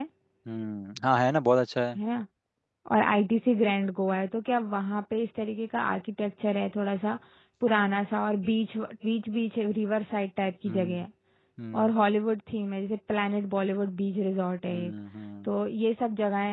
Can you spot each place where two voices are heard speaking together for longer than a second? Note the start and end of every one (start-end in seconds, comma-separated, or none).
none